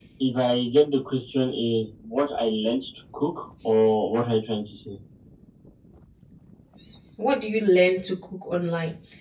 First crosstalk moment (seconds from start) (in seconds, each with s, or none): none